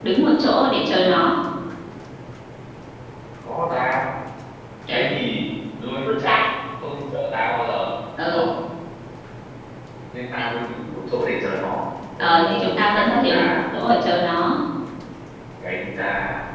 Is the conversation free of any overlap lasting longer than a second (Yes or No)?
No